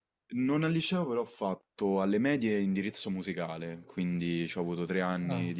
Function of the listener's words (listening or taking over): listening